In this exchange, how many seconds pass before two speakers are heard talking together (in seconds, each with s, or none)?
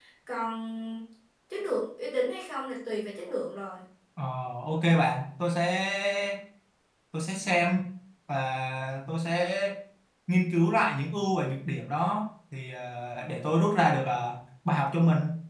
none